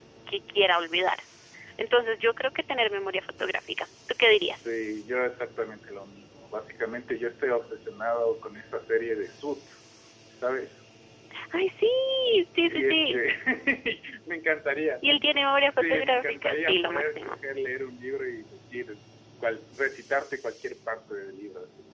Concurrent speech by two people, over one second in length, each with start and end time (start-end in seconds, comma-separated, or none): 15.6-17.2